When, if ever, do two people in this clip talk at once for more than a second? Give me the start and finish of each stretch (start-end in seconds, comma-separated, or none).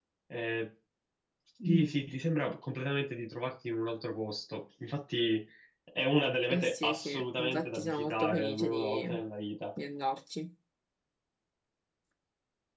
6.5-9.1